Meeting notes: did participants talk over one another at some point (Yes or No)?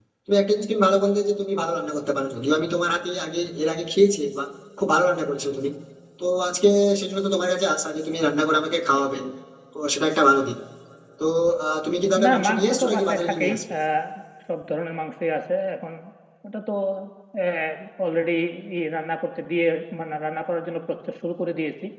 Yes